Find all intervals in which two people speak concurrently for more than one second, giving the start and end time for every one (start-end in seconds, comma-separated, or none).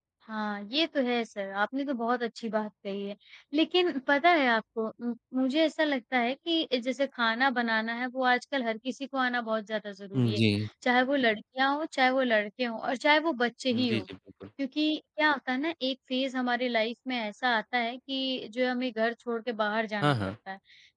none